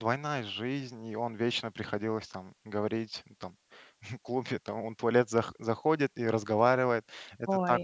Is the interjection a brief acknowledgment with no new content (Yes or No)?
Yes